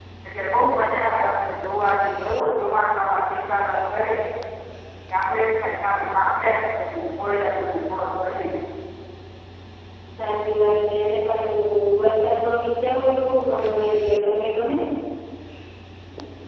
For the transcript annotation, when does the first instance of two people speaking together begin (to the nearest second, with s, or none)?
none